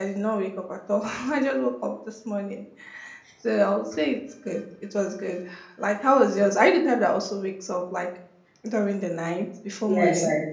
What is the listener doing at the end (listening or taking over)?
taking over